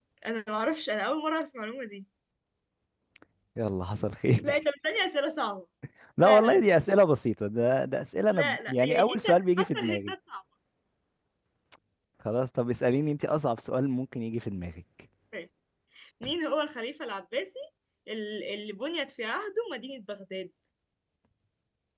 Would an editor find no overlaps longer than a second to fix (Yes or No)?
No